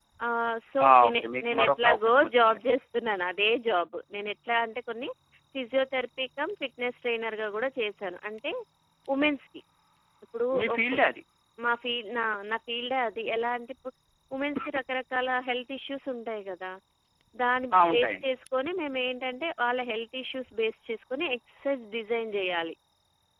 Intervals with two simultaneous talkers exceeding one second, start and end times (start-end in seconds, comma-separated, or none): 0.9-2.6